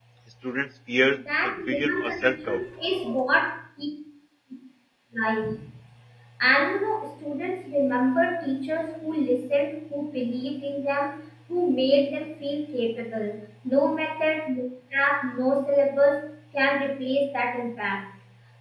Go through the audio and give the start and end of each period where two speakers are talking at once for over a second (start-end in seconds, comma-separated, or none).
1.4-2.6